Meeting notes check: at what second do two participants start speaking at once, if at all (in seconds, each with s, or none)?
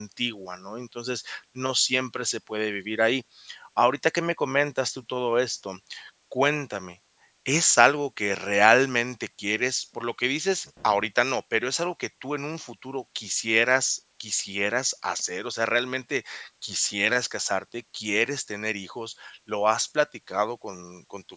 none